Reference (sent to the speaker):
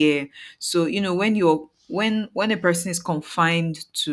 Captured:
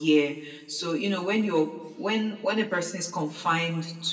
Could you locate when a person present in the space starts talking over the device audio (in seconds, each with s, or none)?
none